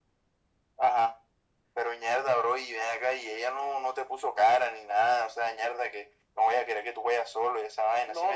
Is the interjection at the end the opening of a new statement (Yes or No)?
Yes